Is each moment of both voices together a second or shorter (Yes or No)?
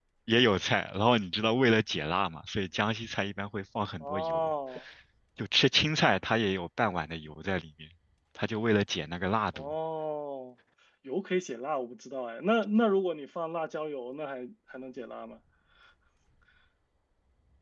Yes